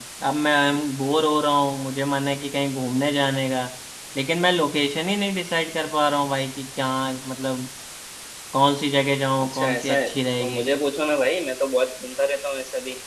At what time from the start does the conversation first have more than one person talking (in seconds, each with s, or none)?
9.4 s